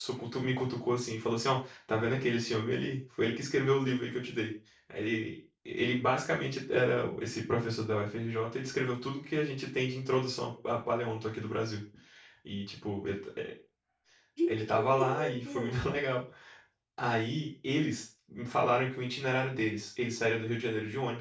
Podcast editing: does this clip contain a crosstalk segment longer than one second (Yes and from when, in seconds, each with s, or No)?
Yes, from 14.5 s